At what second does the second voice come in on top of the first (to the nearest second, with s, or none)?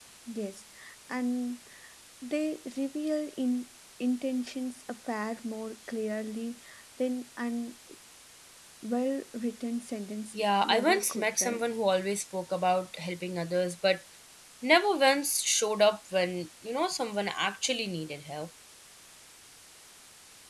10 s